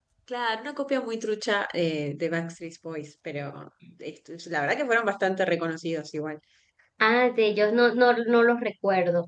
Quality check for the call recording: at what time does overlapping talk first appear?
none

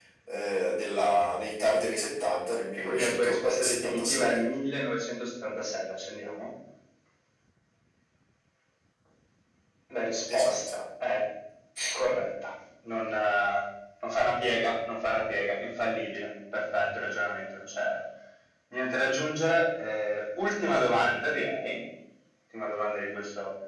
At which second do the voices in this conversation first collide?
2.8 s

